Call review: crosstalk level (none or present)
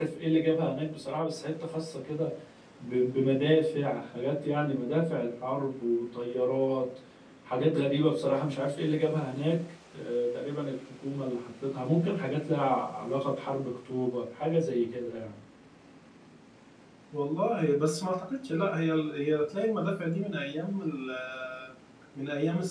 none